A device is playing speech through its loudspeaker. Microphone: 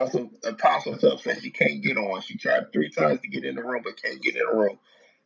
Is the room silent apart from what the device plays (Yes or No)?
Yes